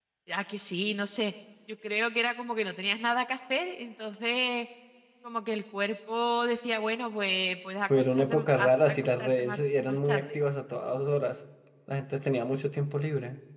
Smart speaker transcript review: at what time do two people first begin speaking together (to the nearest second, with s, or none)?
8 s